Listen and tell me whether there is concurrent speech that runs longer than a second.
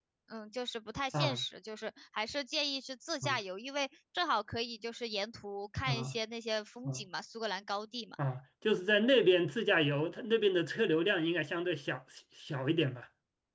No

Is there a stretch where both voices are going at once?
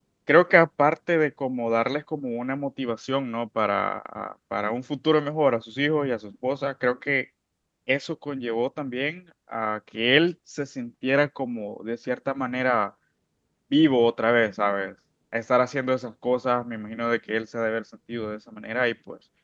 No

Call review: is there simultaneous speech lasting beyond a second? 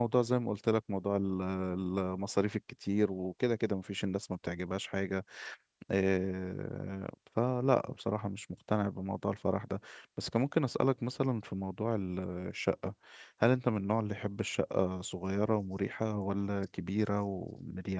No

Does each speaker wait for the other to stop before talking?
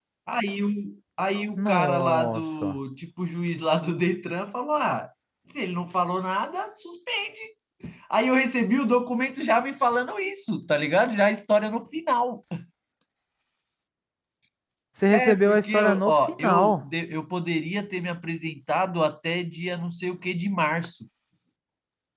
No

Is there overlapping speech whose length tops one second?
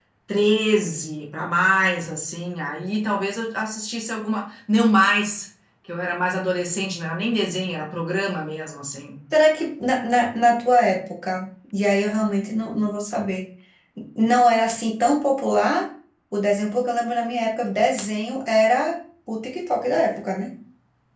No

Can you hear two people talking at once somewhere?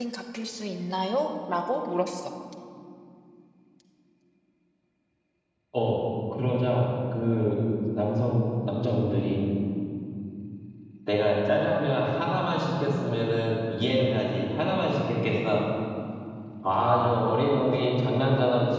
No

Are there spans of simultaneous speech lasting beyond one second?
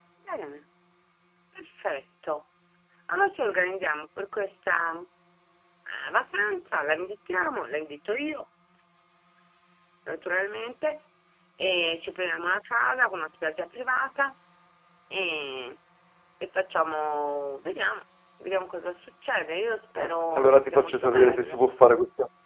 Yes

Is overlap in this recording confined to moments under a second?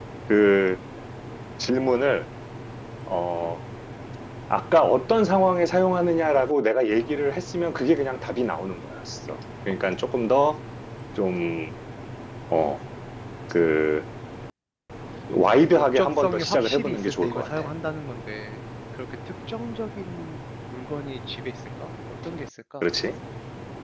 No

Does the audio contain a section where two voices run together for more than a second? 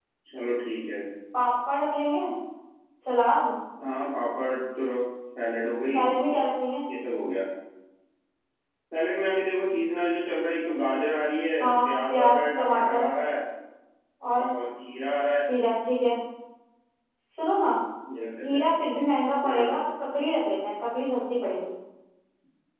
Yes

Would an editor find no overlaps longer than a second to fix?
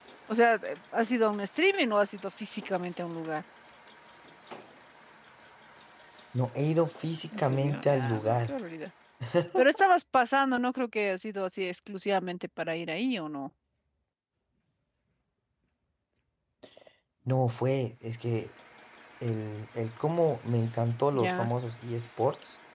No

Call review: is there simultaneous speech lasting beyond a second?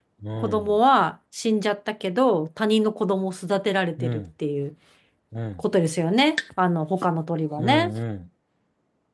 No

